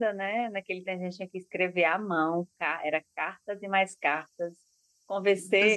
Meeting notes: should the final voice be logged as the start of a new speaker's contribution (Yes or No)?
No